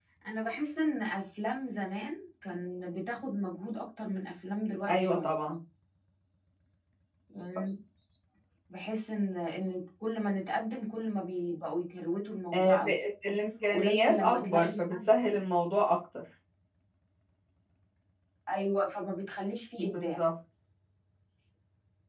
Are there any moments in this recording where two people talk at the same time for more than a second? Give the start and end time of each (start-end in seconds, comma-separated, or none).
13.7-15.4